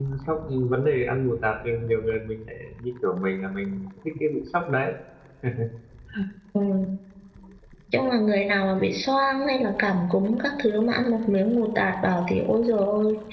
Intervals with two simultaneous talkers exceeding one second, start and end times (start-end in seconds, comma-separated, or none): none